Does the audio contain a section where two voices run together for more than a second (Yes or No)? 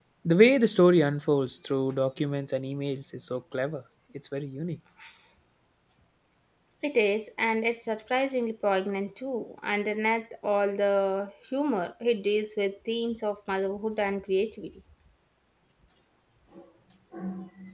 No